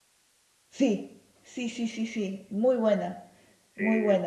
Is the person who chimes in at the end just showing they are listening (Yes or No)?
Yes